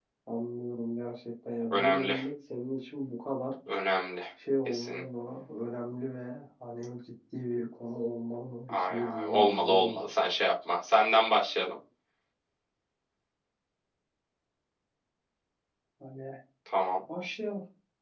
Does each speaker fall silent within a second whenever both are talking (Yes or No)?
No